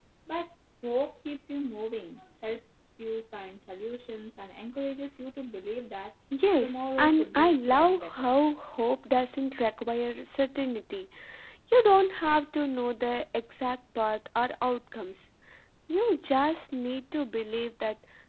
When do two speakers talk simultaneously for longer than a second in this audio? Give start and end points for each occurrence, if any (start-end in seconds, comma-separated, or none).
6.6-8.4